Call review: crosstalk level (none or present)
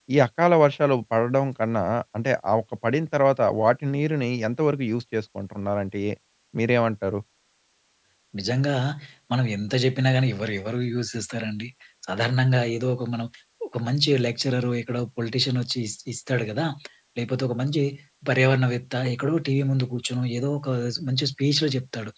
none